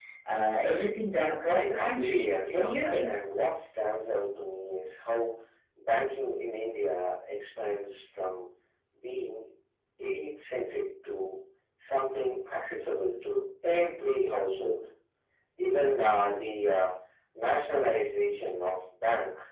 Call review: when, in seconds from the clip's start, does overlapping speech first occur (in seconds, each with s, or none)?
1.5 s